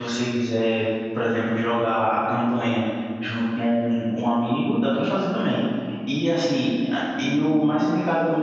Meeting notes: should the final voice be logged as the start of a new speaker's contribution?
No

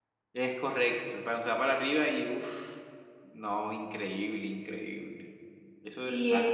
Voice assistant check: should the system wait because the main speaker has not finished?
No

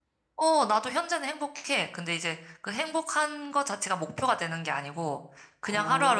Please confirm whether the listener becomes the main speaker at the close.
No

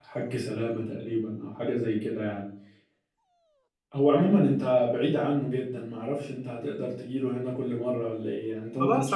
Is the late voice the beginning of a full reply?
Yes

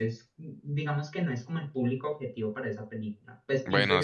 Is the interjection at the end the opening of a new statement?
Yes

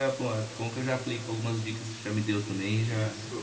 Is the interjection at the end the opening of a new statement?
Yes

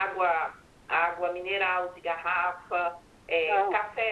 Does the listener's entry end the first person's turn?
No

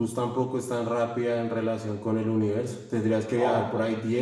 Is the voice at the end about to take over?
No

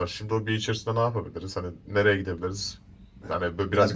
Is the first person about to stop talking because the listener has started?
No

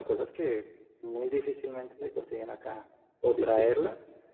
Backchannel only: Yes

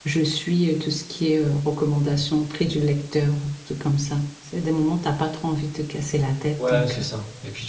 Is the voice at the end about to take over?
Yes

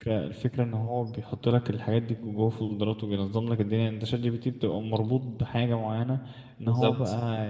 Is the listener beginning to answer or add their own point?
No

